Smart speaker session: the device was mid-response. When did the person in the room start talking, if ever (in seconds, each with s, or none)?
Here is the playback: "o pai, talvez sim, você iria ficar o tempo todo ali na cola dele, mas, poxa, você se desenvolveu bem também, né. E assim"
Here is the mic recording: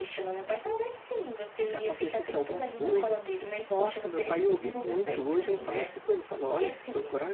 1.6 s